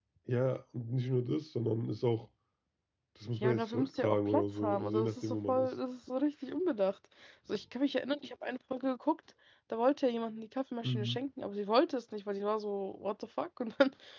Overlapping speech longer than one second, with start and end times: 3.4-5.7

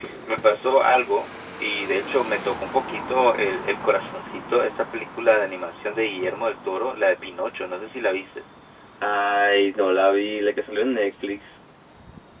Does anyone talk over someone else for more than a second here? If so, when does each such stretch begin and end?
none

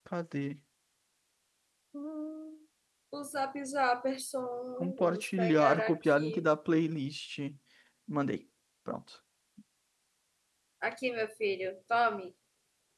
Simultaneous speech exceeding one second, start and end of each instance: 4.8-6.4

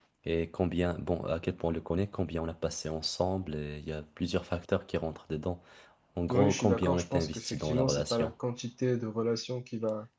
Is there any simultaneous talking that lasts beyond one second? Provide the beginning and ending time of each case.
6.3-8.3

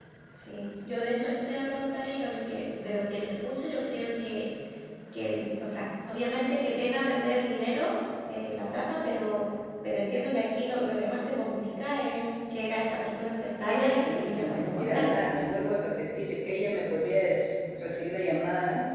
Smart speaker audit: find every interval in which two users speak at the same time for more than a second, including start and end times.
13.7-15.0

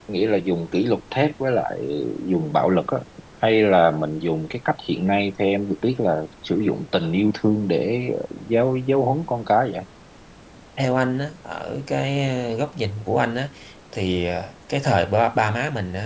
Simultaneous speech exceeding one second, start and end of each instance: none

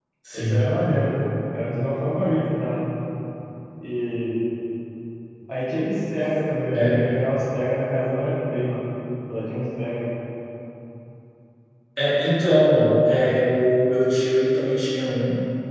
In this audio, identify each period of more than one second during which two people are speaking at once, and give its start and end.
none

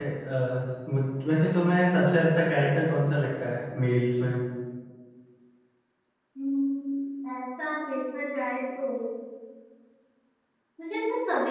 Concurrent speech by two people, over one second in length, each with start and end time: none

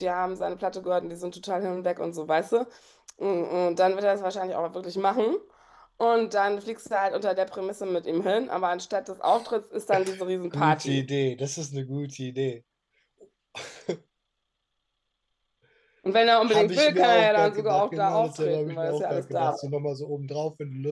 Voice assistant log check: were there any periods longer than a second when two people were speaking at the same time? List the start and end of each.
16.5-19.6

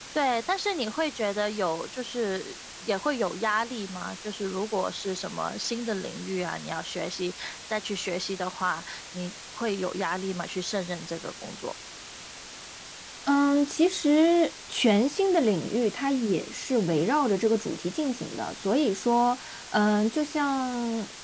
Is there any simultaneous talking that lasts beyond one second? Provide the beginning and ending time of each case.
none

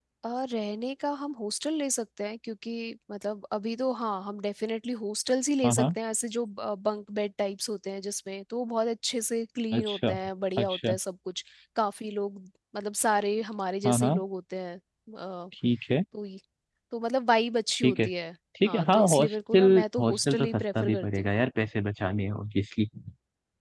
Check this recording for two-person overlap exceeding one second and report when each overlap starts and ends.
18.6-21.3

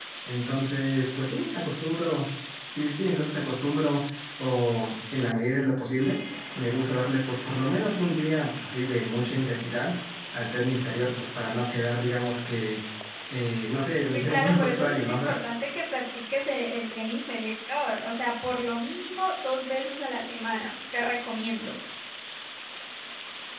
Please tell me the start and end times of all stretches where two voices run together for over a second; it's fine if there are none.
14.1-15.3

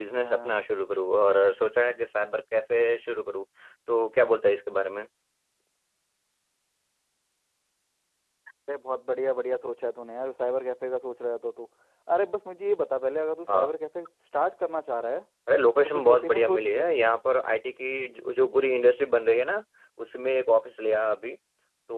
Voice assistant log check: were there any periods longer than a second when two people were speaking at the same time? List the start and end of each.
15.8-17.1

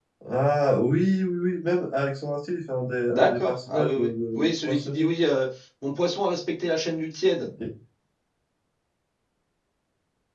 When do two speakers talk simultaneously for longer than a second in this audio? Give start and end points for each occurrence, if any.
3.1-5.1

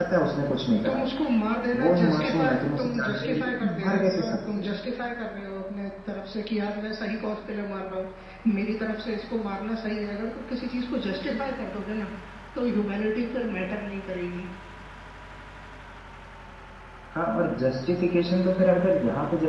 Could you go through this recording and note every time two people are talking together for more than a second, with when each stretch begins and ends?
1.8-4.7

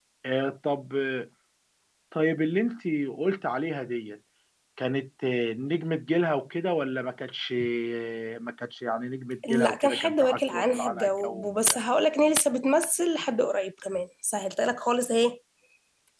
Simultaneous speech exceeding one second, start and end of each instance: 9.6-11.8

